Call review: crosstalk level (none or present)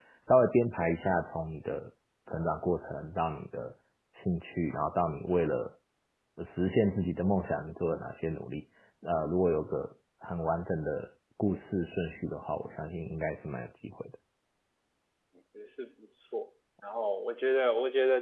none